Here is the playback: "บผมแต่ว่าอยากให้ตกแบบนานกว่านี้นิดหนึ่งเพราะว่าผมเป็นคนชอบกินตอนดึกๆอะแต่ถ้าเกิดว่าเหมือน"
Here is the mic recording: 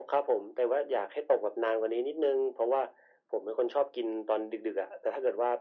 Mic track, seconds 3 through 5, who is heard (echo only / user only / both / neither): echo only